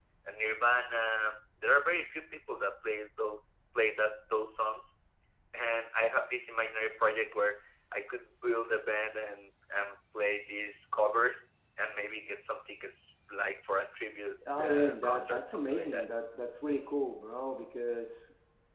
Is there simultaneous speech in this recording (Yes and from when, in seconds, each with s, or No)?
Yes, from 14.6 s